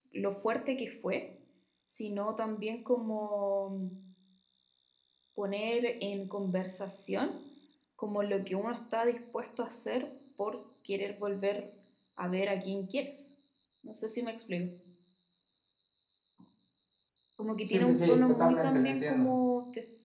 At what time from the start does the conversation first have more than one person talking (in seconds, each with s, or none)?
17.6 s